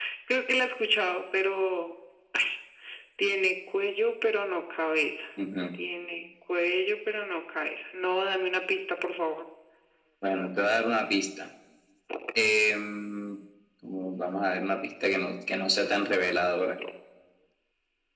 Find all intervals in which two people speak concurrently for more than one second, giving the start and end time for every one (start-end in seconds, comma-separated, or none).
none